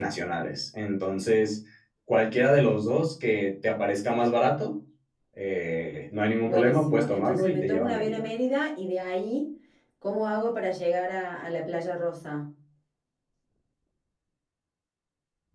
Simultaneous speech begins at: 6.5 s

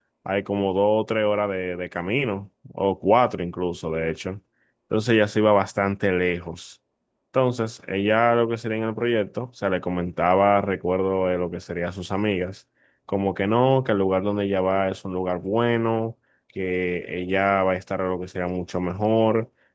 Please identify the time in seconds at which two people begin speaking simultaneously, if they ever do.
none

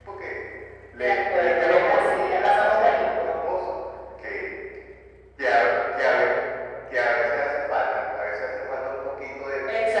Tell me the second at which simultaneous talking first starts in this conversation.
0.9 s

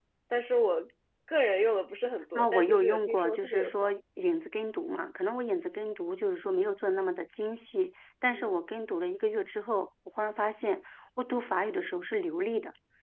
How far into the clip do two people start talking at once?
2.3 s

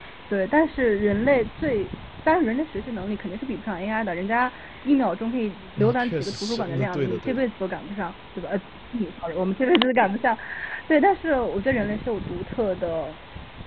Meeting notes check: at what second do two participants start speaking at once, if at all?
5.8 s

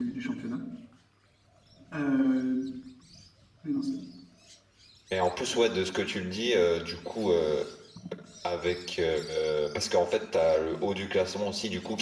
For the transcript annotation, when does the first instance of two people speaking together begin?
none

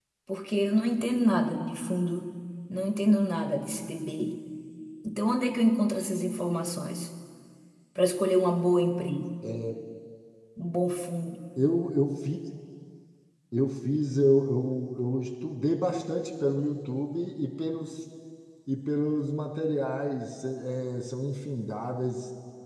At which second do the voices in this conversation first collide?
none

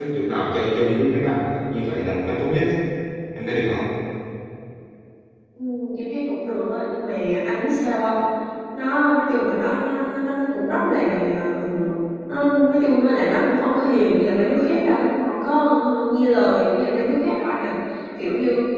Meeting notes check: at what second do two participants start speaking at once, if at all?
none

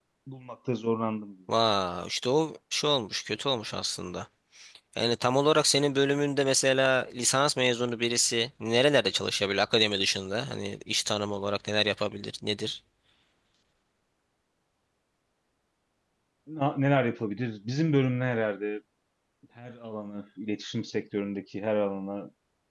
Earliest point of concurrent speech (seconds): none

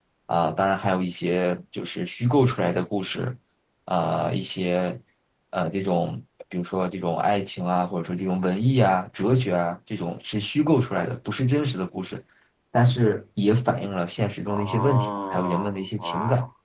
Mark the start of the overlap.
14.5 s

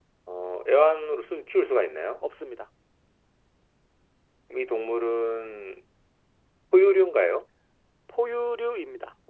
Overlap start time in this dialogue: none

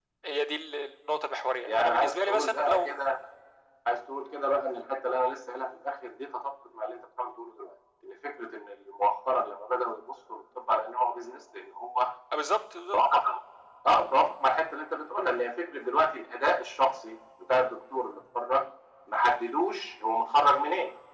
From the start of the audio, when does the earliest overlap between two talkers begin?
1.7 s

